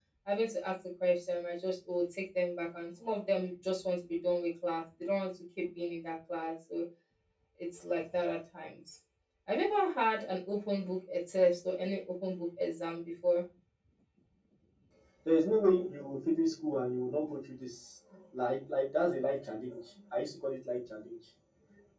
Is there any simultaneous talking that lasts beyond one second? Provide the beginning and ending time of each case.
none

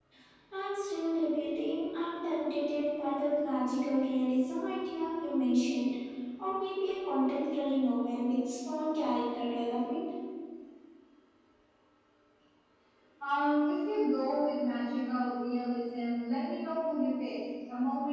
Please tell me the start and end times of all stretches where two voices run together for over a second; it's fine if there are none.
none

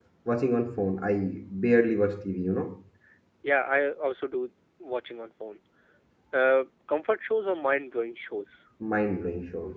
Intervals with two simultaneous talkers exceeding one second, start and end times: none

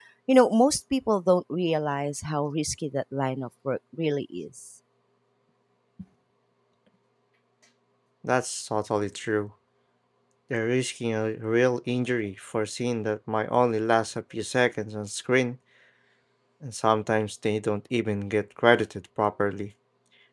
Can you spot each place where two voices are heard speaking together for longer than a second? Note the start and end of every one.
none

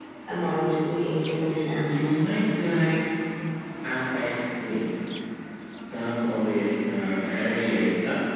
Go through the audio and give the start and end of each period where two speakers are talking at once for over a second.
none

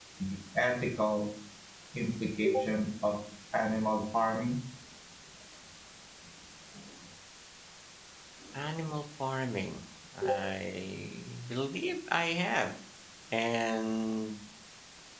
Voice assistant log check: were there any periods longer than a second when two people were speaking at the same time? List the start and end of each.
none

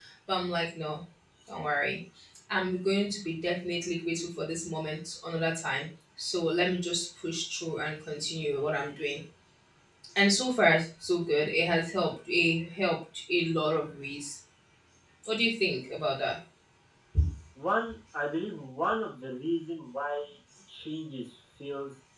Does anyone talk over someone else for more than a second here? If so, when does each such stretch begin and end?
none

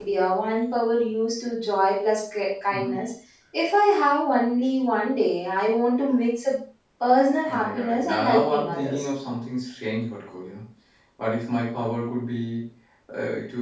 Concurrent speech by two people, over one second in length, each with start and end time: 7.5-9.0

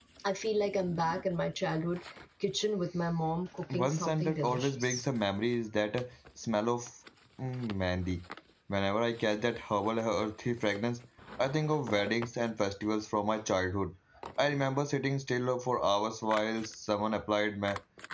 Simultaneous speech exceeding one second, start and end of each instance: 3.7-5.0

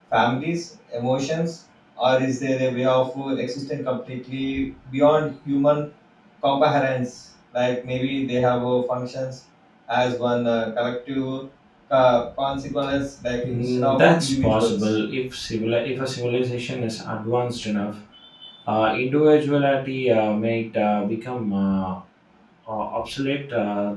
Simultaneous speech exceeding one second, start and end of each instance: 13.4-14.8

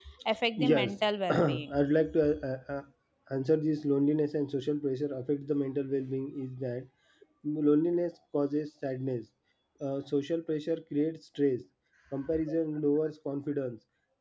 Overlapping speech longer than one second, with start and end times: 0.6-1.8

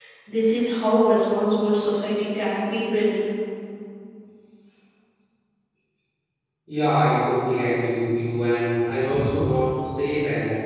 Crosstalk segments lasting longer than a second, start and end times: none

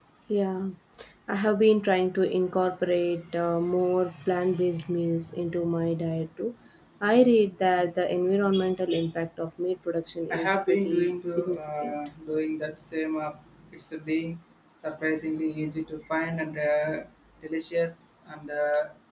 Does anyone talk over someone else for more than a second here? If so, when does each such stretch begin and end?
10.3-11.9

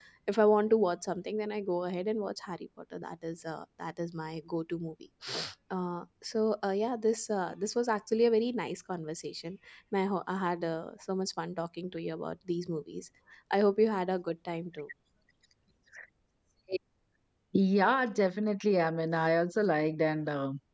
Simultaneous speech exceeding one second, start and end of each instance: none

